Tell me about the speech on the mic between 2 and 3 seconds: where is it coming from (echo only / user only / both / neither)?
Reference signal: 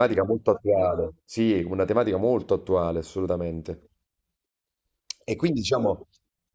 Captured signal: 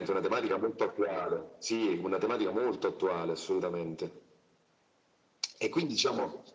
echo only